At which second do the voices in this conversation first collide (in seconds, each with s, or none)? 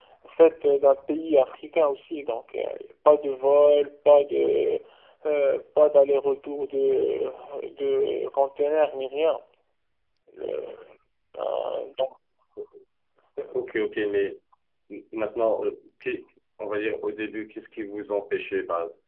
none